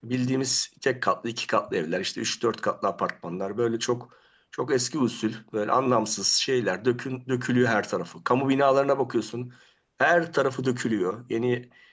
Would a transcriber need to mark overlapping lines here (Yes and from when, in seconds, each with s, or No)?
No